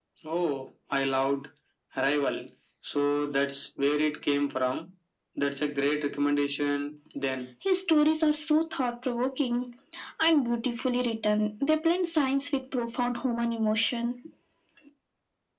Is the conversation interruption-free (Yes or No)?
Yes